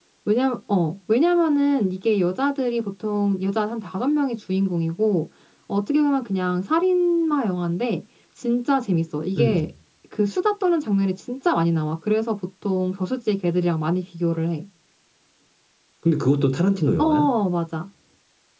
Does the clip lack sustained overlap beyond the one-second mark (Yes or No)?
Yes